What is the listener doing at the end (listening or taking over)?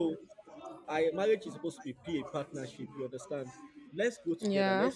listening